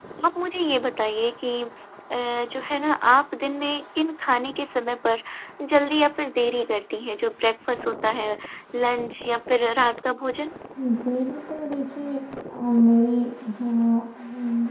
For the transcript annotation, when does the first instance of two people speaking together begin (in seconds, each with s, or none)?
none